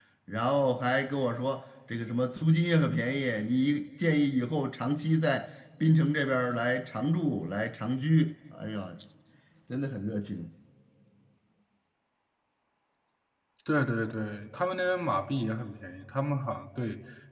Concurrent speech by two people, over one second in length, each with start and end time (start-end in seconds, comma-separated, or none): none